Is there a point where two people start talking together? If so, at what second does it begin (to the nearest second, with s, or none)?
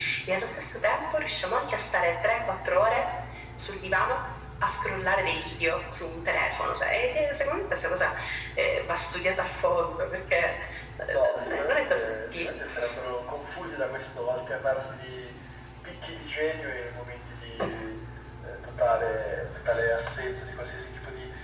11 s